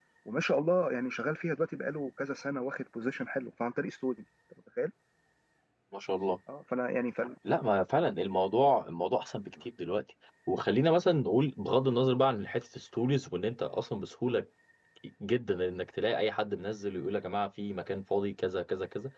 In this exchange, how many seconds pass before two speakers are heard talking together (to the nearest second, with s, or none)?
none